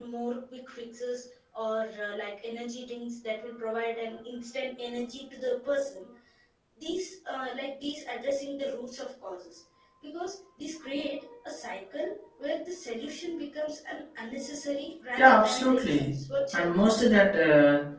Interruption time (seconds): 15.2 s

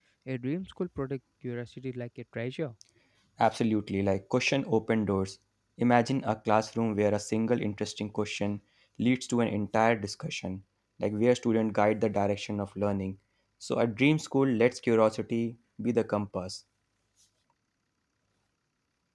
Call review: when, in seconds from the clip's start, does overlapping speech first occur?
none

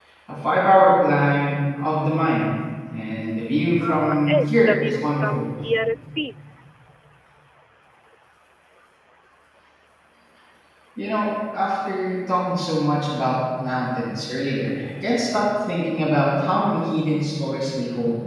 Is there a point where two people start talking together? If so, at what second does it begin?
3.8 s

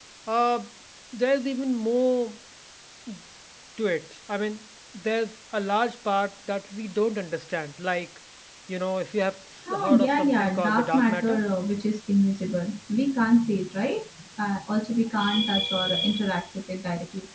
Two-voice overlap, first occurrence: 9.7 s

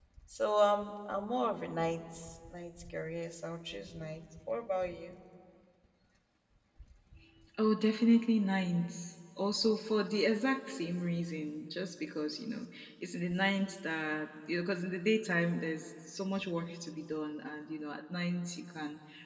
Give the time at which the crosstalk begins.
none

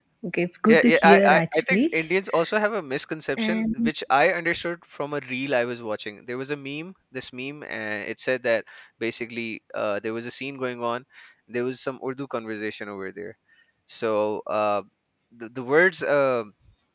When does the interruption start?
0.6 s

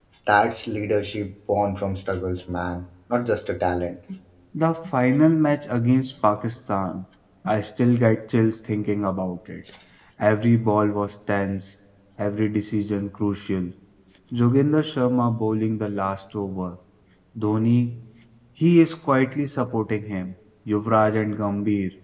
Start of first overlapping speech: none

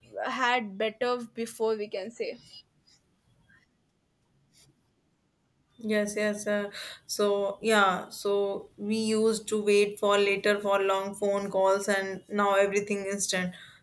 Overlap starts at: none

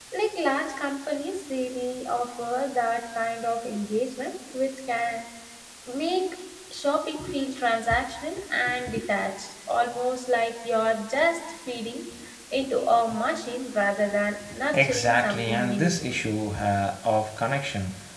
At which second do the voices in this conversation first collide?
14.7 s

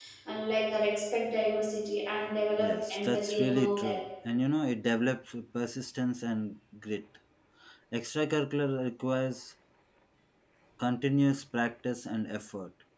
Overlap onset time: 2.6 s

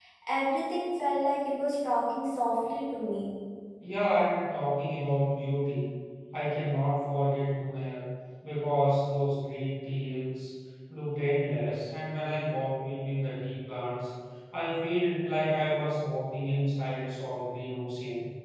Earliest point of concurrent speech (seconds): none

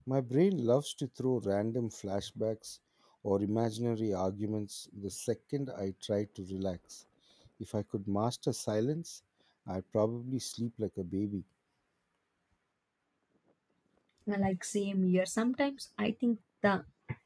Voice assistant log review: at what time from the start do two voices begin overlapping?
none

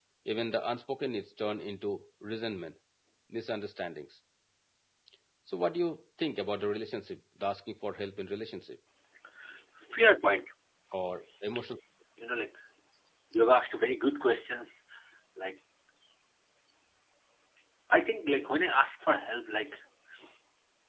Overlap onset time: none

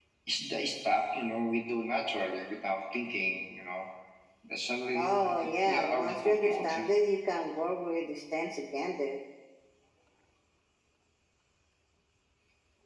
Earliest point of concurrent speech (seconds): 4.9 s

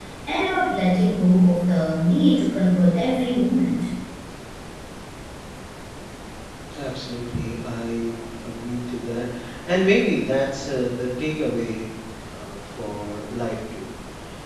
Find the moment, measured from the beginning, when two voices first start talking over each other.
none

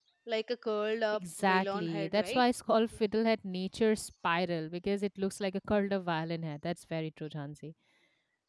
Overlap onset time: 1.1 s

